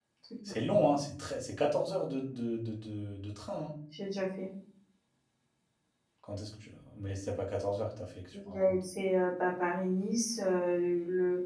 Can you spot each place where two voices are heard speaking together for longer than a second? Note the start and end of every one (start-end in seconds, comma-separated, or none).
none